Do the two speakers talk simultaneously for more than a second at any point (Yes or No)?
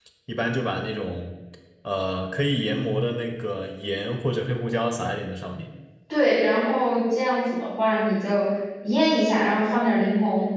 No